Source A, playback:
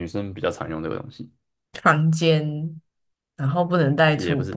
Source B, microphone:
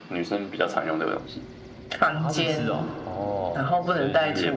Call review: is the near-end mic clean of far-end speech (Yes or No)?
No